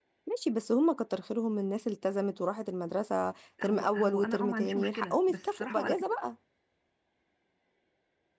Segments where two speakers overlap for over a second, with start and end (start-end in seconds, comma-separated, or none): 3.6-5.8